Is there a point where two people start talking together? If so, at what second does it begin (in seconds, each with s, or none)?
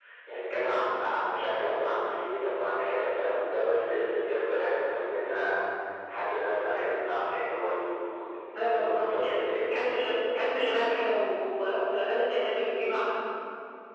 8.6 s